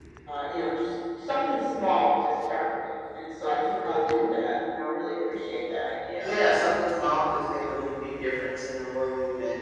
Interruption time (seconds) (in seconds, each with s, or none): none